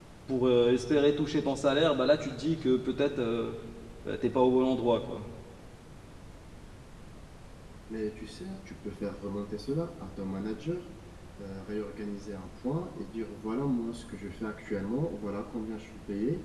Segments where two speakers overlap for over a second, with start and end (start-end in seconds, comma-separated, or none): none